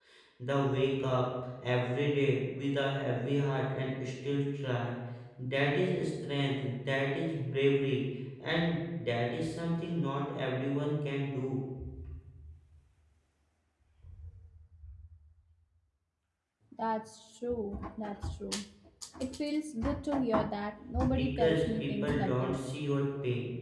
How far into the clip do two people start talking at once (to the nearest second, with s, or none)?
21 s